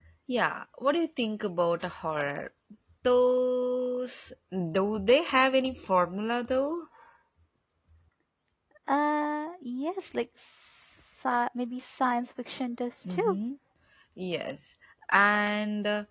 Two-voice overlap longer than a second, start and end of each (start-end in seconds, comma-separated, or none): none